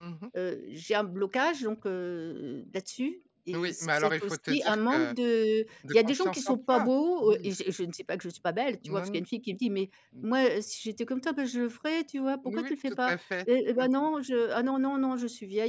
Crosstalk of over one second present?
Yes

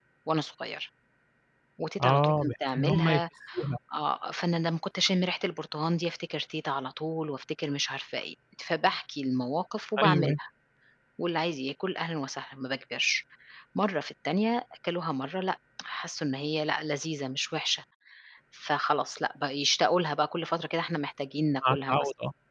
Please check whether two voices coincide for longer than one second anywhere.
Yes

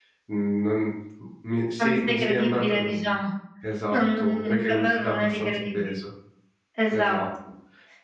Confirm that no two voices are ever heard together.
No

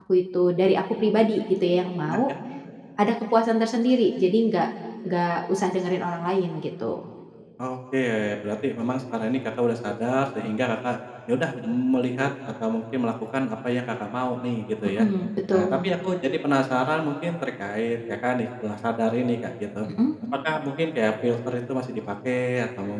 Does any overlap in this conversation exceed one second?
No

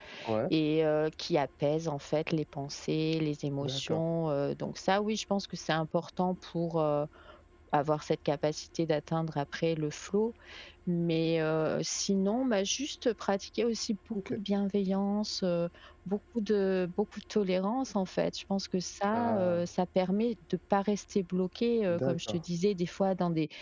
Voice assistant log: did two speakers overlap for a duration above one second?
No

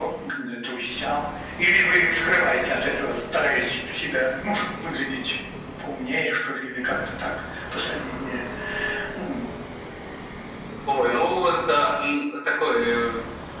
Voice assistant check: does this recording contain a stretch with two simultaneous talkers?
No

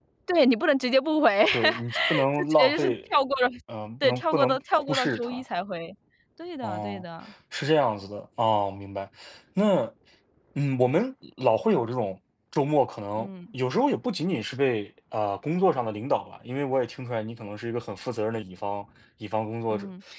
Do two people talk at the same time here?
Yes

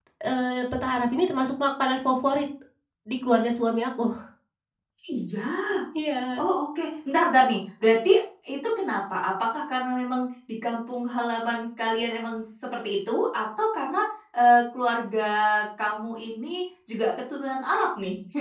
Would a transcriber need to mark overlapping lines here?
No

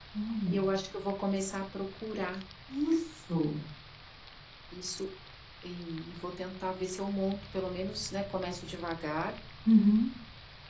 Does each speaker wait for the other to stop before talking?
Yes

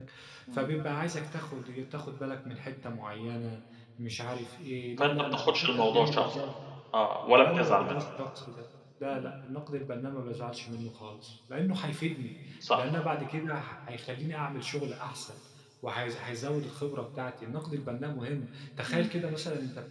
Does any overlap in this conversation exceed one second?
Yes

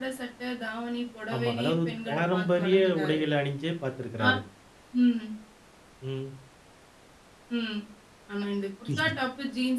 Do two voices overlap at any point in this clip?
Yes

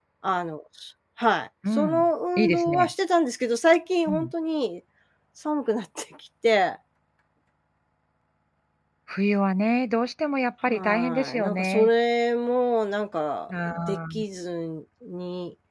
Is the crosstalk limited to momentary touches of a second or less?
No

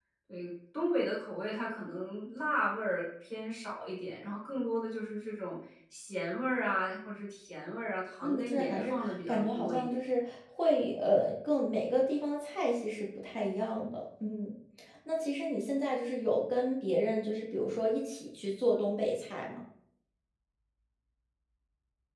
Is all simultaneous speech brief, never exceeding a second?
No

